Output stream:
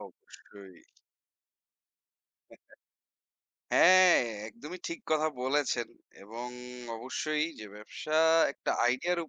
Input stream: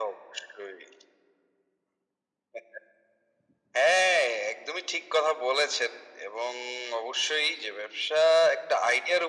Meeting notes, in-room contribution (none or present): none